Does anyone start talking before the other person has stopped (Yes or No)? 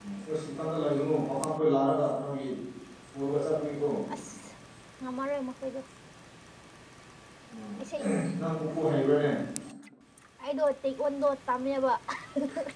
No